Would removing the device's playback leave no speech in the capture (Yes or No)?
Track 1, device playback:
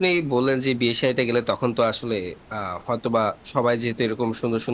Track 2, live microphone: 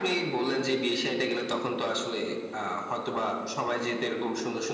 Yes